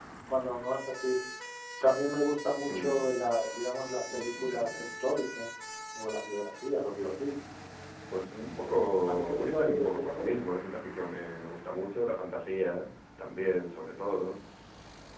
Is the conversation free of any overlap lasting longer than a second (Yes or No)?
No